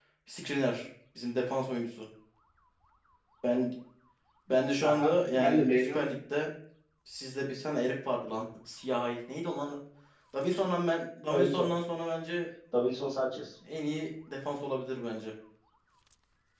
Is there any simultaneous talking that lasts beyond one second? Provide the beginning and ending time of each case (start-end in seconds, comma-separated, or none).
4.8-6.1